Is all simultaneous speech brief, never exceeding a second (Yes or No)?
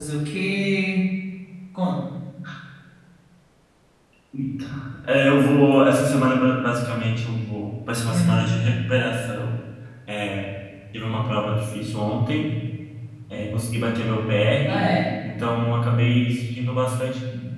Yes